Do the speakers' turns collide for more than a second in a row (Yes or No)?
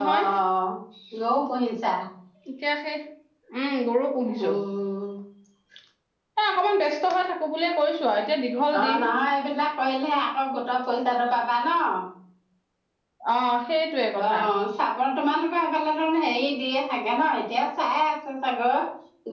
No